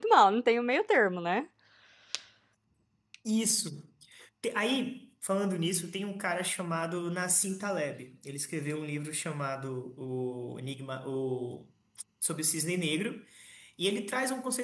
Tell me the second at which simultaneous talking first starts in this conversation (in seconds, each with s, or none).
none